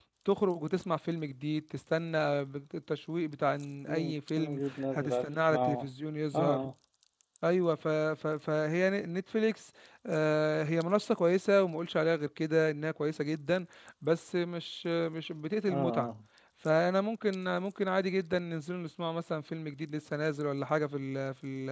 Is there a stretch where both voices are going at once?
Yes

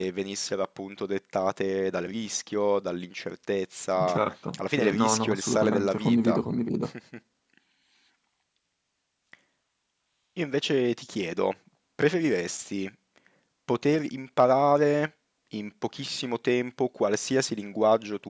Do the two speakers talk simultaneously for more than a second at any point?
Yes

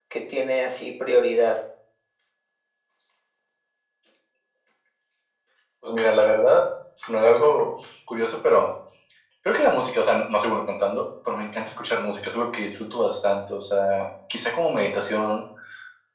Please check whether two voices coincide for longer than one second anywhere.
No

